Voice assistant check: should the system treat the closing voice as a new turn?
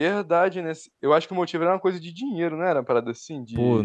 Yes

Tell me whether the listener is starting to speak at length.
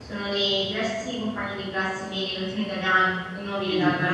Yes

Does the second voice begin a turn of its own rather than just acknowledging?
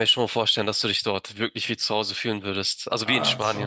Yes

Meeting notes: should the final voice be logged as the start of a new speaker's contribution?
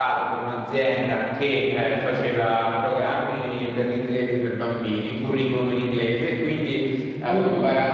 No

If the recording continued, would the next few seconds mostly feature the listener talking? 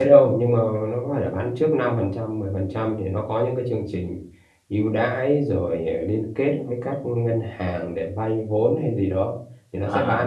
No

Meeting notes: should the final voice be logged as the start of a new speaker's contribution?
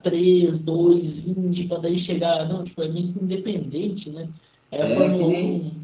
Yes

